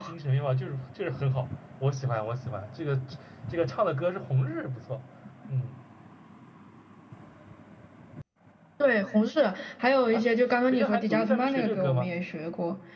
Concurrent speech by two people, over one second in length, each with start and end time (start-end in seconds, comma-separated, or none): 10.7-12.1